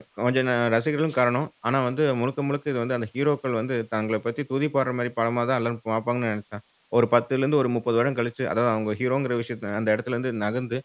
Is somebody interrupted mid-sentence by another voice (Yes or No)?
No